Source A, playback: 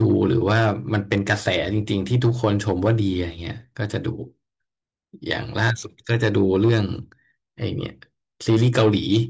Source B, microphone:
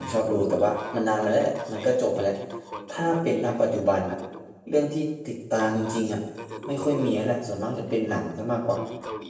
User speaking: Yes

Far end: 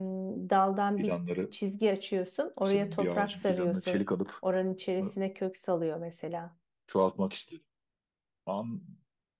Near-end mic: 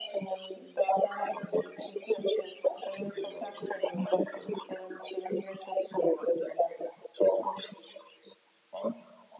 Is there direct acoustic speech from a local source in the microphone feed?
No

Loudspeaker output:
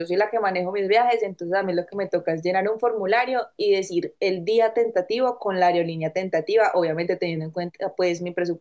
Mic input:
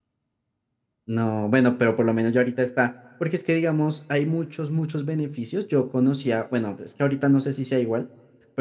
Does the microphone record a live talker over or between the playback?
Yes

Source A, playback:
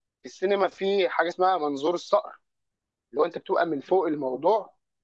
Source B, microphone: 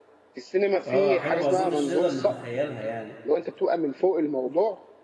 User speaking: Yes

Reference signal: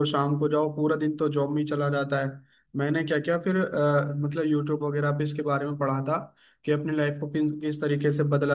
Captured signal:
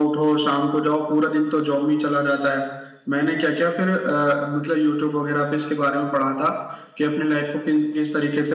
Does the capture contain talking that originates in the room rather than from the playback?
No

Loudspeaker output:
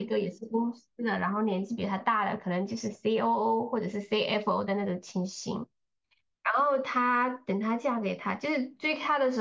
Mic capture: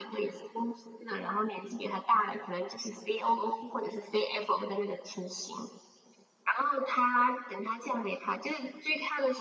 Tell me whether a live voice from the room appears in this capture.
No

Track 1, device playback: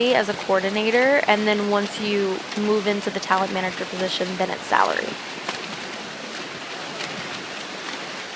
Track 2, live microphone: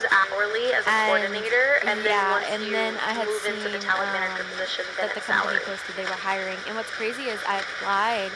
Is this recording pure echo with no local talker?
No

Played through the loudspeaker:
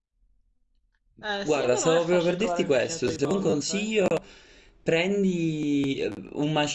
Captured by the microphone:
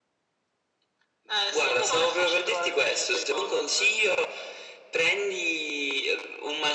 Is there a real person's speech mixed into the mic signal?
No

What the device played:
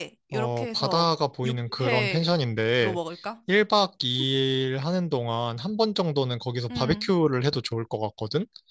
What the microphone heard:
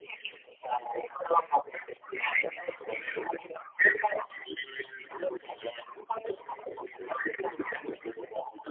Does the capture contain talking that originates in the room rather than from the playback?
No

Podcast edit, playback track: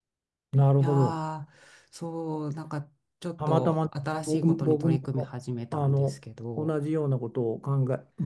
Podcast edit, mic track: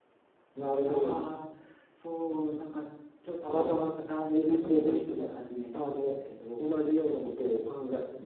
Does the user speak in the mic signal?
No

